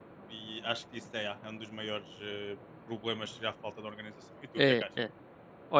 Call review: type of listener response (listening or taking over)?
taking over